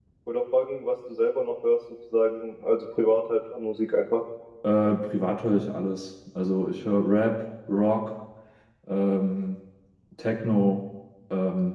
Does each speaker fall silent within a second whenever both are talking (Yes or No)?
Yes